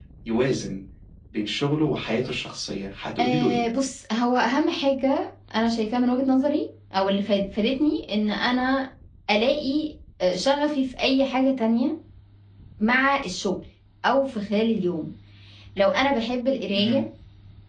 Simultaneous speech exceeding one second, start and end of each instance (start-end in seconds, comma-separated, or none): none